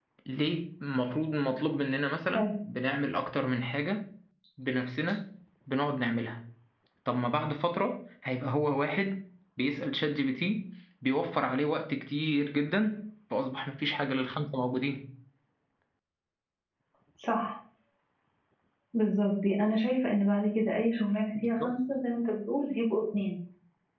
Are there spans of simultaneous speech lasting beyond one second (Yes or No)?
No